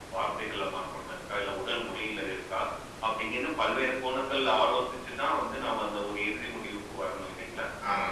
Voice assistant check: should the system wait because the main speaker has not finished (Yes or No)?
No